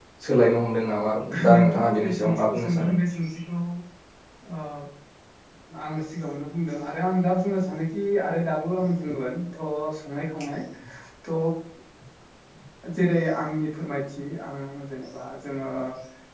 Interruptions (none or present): present